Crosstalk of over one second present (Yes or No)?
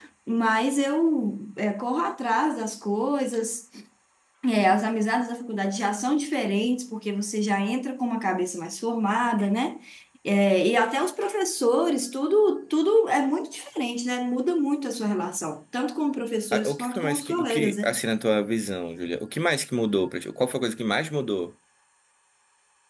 Yes